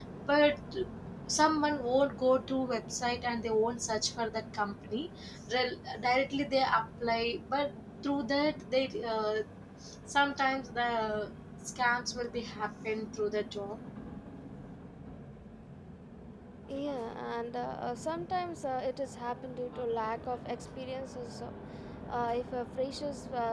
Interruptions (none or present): none